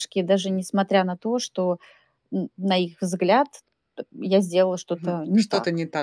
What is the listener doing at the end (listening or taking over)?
taking over